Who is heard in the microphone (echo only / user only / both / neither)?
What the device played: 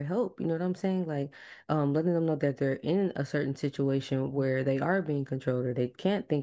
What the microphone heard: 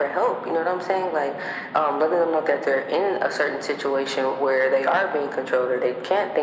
echo only